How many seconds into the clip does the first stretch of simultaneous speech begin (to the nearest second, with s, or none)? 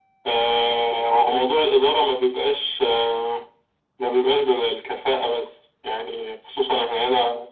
none